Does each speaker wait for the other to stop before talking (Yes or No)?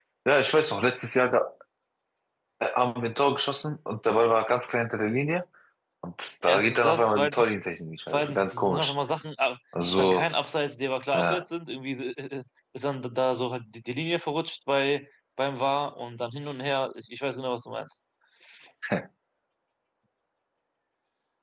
No